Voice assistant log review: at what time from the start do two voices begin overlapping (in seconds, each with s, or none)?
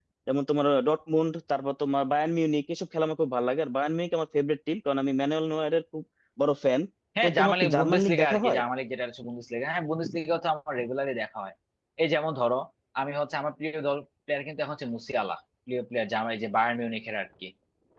7.2 s